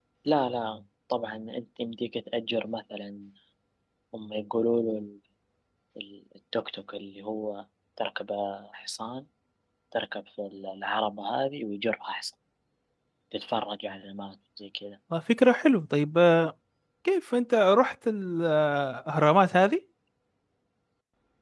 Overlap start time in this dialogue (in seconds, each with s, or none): none